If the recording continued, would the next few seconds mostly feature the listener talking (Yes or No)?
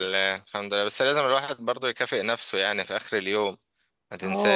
Yes